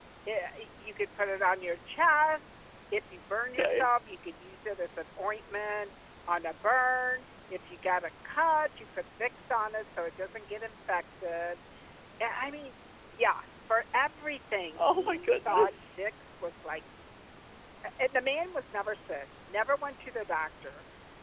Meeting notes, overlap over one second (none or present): present